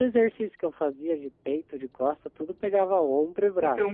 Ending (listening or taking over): taking over